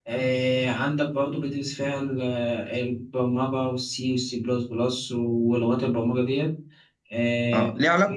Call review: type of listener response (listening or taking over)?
taking over